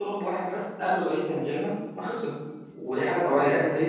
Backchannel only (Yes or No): Yes